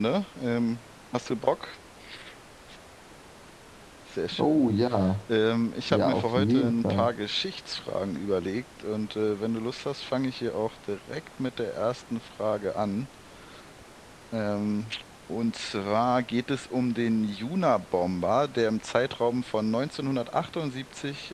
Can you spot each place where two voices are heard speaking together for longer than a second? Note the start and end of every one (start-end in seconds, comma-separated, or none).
5.9-7.1